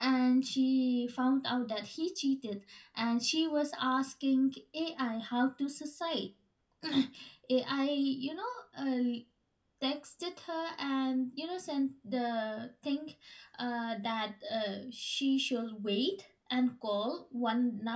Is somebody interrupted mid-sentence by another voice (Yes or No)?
No